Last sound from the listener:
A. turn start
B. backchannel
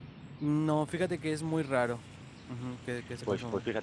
A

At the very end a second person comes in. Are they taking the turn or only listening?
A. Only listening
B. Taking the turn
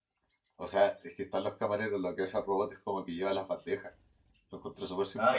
B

